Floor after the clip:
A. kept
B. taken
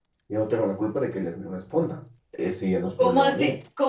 B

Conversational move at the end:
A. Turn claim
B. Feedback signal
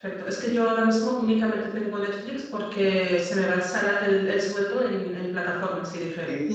A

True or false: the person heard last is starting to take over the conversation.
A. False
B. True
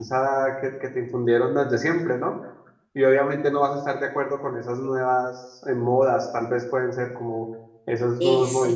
B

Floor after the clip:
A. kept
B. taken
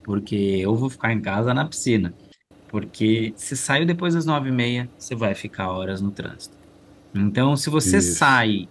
A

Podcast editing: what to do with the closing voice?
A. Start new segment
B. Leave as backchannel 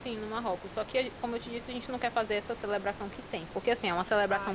B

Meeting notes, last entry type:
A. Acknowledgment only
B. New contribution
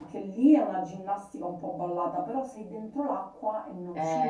B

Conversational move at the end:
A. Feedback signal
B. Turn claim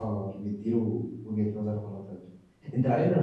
A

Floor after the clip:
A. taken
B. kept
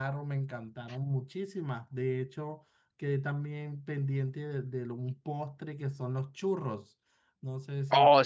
A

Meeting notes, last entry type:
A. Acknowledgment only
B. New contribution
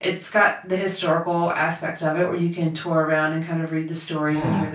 A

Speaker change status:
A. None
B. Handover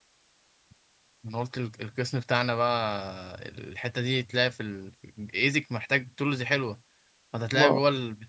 A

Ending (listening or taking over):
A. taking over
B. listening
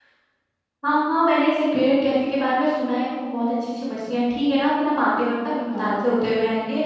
B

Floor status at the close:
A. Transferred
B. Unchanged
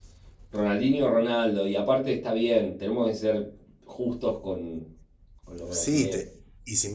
A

